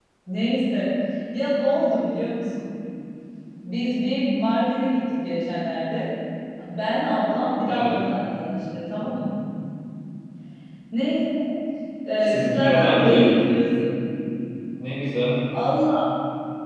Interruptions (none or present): present